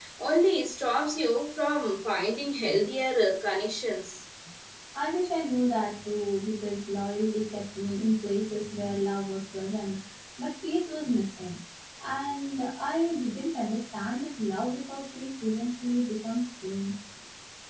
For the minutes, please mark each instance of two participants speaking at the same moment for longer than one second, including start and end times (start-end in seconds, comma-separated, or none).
none